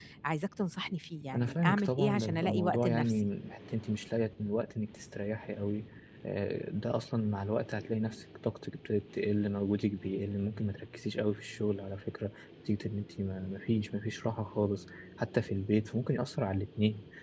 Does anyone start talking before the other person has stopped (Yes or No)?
Yes